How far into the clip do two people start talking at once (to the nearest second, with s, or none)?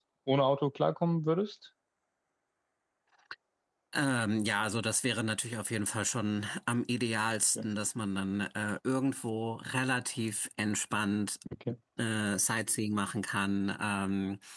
none